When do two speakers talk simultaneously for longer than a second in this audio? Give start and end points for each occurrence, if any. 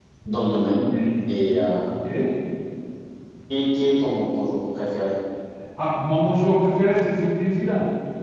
none

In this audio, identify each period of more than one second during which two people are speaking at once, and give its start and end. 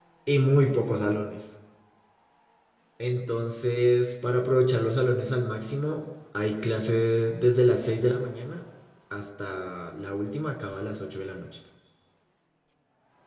none

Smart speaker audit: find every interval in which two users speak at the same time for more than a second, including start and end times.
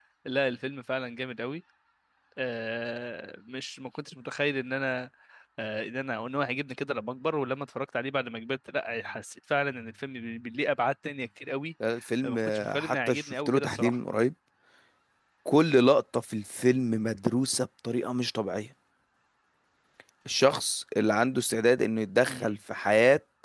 12.2-14.0

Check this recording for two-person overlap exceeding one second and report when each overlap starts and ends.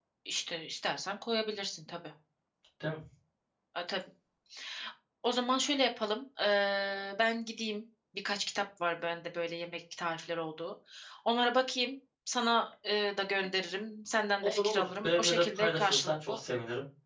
14.4-16.4

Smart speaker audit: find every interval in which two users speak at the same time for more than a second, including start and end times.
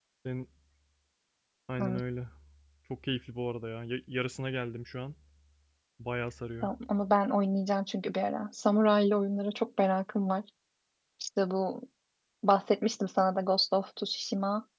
none

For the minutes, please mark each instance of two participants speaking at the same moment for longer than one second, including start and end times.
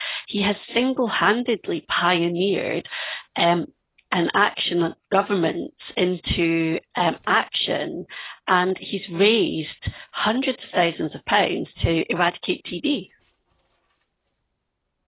none

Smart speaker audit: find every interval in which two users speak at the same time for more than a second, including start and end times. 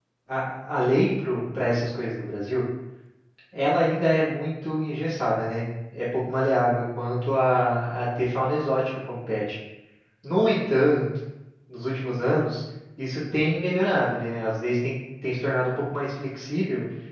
none

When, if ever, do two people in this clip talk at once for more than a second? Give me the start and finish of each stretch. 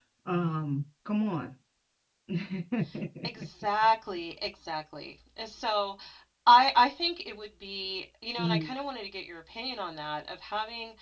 none

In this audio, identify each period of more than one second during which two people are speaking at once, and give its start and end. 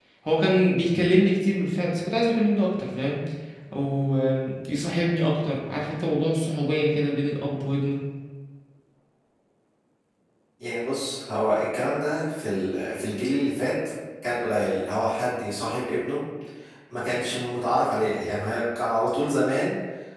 none

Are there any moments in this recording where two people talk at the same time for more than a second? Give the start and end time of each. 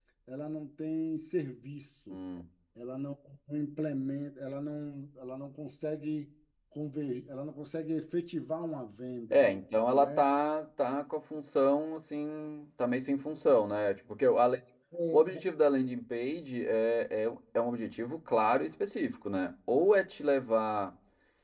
none

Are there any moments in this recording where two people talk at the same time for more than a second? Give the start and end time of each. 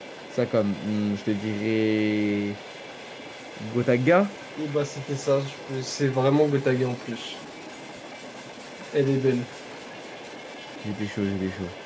none

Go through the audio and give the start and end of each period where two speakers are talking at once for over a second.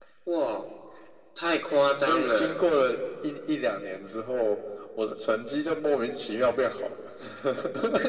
none

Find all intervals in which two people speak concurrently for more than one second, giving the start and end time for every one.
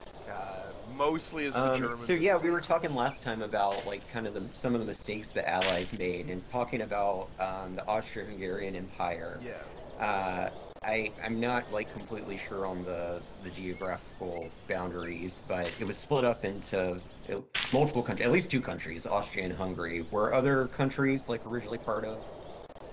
1.5-3.1

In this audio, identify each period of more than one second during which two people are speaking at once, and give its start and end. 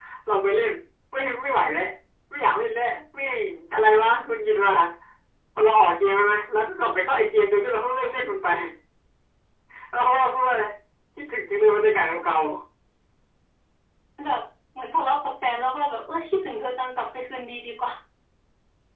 none

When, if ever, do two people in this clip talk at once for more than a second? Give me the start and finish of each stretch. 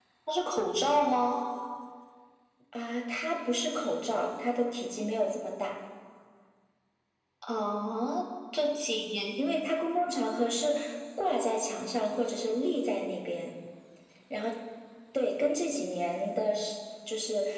none

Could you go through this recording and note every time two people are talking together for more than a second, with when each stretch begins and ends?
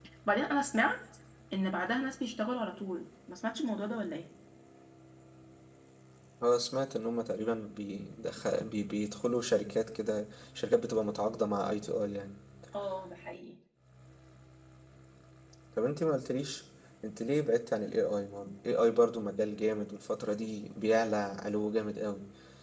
none

